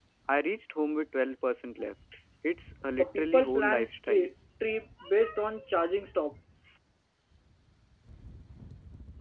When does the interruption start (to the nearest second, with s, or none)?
3 s